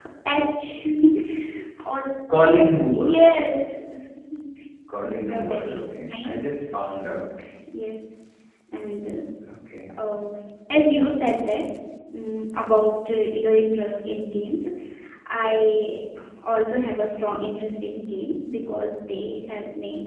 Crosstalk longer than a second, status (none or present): present